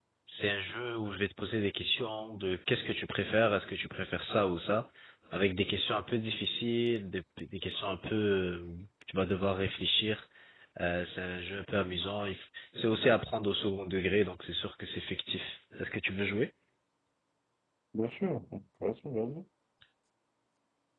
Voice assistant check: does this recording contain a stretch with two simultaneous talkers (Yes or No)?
No